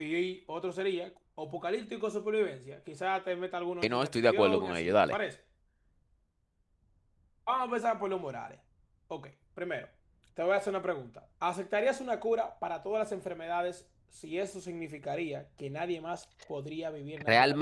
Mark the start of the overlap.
4 s

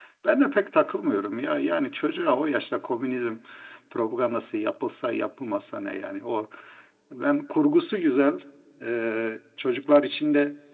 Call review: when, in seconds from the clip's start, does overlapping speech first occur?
none

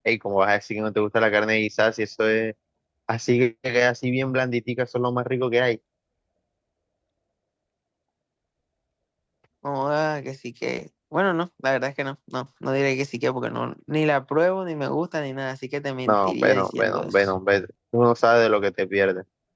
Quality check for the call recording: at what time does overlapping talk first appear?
16 s

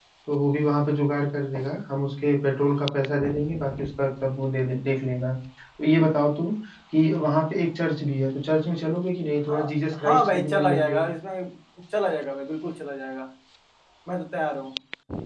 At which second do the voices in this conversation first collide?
9 s

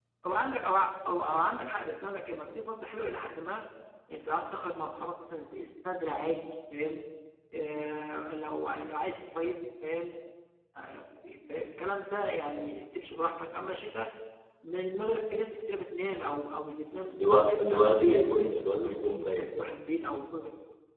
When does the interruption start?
17 s

